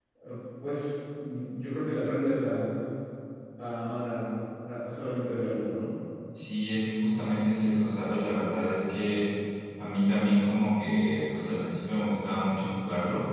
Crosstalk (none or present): none